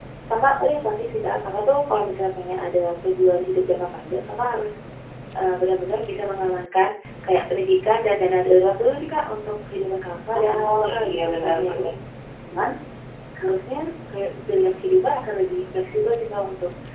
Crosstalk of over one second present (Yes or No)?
Yes